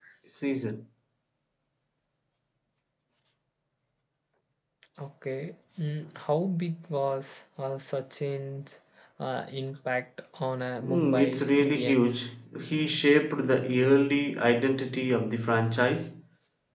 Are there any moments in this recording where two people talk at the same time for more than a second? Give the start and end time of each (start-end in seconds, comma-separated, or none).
10.8-12.2